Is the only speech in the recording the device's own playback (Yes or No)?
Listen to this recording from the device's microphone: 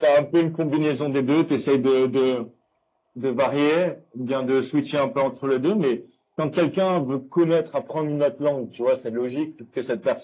Yes